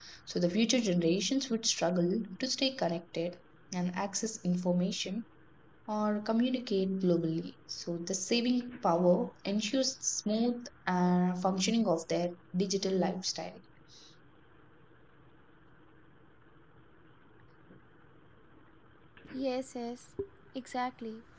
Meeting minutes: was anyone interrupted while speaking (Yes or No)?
No